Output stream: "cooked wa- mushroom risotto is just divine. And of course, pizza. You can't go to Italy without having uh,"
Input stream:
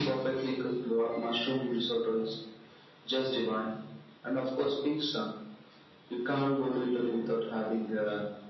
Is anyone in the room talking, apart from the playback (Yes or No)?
No